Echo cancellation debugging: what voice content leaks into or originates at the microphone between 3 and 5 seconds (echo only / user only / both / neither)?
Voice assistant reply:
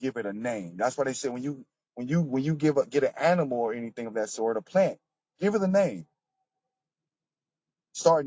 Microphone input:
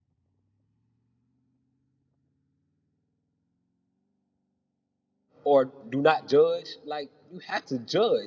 neither